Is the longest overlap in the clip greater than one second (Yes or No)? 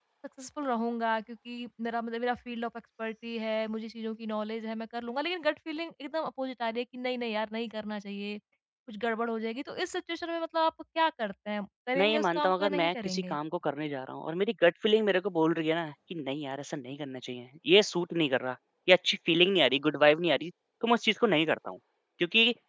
Yes